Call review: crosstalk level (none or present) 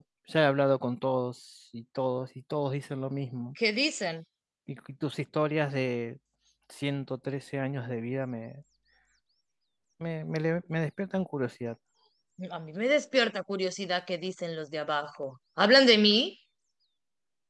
none